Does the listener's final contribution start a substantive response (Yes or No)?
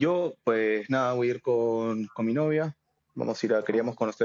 No